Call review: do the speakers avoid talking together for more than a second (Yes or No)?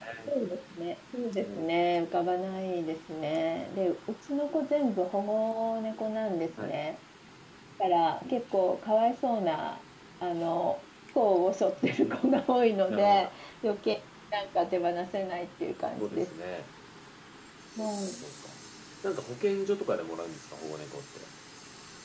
Yes